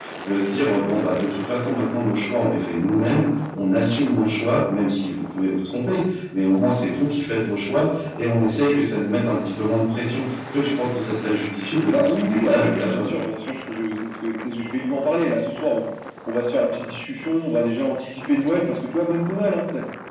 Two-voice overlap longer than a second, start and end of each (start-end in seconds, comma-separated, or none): 11.9-13.1